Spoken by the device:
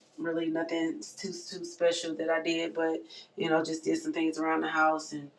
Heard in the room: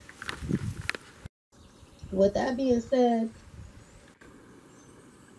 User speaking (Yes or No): Yes